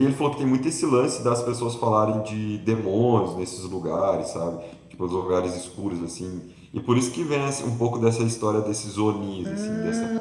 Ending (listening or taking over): listening